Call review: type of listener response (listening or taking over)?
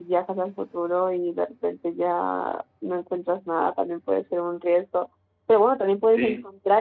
listening